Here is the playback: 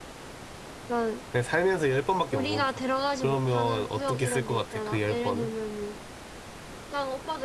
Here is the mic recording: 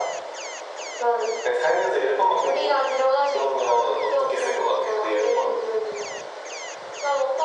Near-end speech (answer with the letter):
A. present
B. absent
B